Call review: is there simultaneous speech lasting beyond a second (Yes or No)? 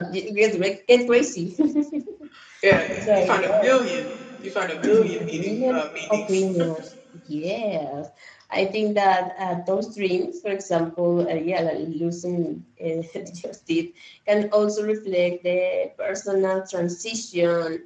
Yes